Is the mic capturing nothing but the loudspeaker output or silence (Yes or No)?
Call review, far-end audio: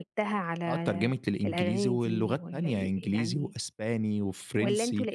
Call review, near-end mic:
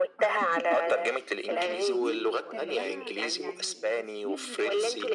No